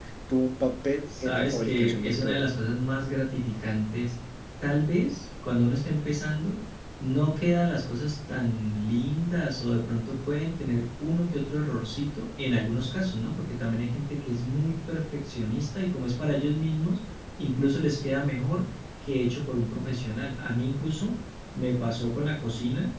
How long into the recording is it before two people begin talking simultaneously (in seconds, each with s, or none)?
1.2 s